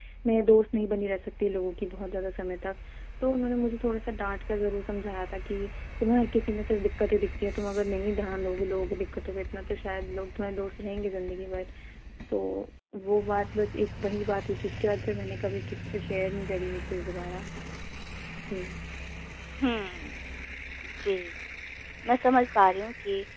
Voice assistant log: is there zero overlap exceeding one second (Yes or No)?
Yes